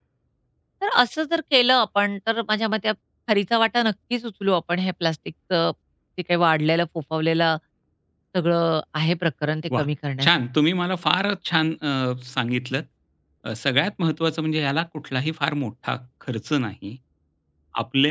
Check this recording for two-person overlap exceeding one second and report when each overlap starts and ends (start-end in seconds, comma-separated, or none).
none